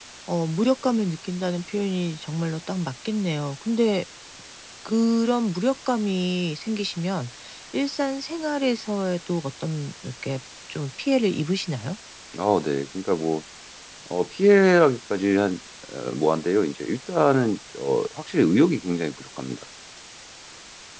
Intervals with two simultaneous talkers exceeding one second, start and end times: none

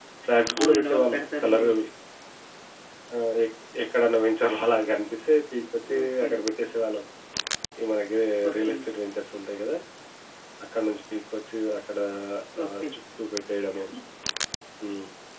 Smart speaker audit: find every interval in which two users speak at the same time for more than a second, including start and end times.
0.6-1.8

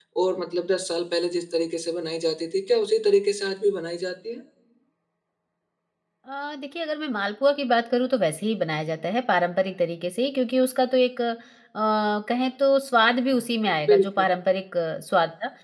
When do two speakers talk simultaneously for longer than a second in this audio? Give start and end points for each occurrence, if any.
none

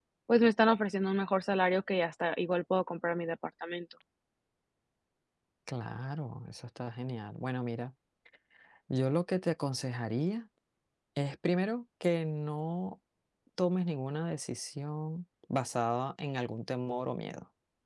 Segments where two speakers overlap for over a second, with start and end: none

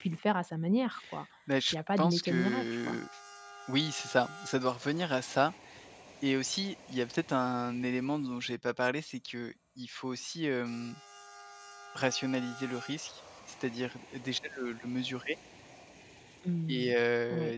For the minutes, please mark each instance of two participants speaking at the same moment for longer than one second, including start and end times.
1.7-3.0

